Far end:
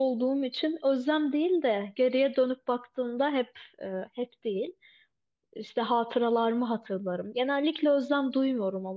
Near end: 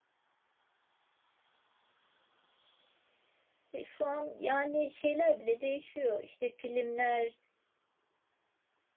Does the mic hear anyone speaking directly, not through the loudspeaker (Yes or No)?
Yes